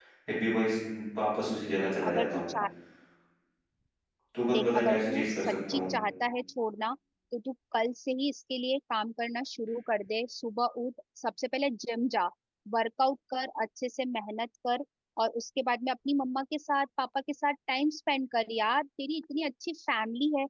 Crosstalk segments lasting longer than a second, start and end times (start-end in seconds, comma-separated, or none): 4.5-5.8